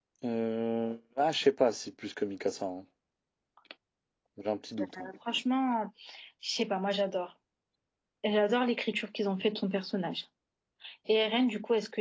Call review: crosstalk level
none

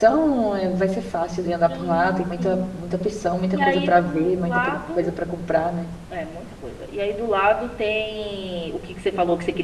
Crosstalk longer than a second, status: present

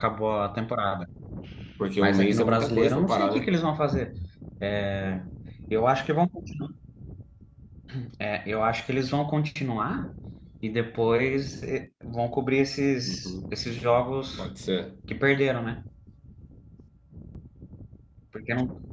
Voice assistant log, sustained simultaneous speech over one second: present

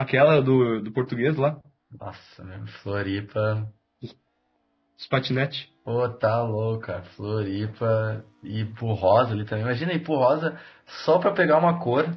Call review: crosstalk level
none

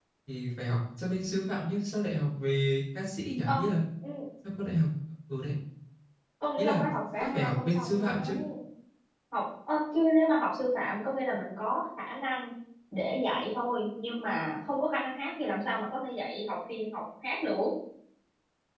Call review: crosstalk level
present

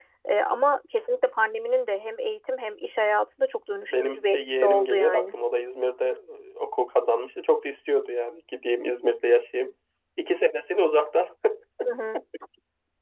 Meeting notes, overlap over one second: present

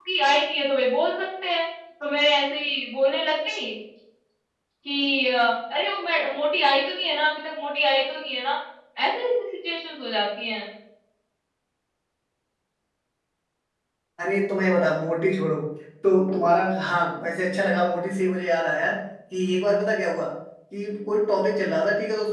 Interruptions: none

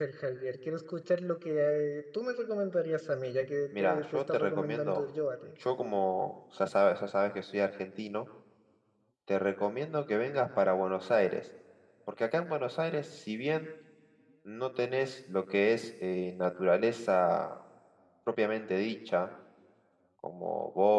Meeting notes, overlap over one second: present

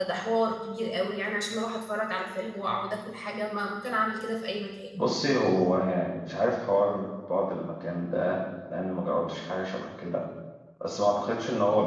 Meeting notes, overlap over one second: none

